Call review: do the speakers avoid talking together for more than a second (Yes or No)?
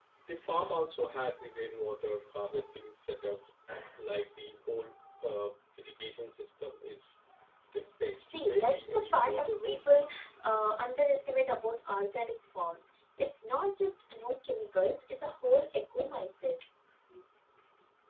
No